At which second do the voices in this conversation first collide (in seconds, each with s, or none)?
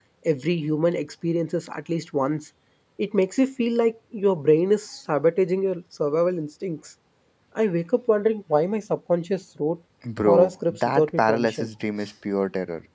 10.2 s